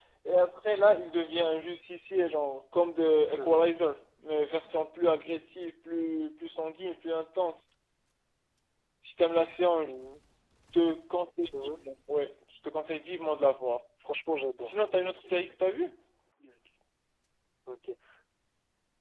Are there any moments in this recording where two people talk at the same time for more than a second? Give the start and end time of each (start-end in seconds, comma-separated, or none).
none